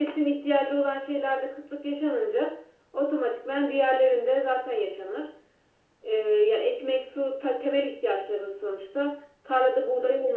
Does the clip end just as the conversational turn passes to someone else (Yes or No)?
No